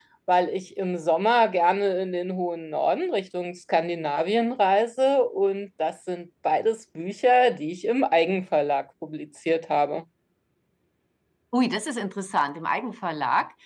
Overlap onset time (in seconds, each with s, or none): none